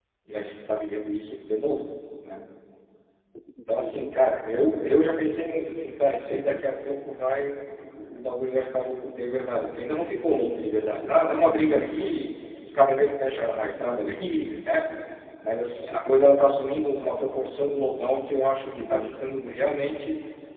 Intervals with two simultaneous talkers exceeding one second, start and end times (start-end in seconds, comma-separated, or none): none